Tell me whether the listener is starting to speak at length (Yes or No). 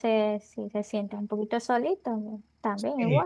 Yes